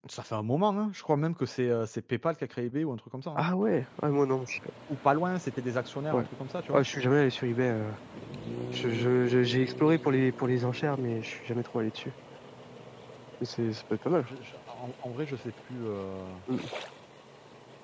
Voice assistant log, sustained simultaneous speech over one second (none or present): none